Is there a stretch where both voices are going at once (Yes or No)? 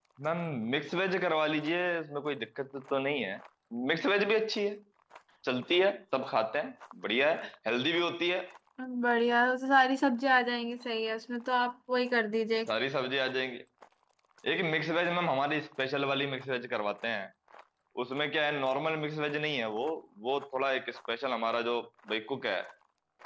No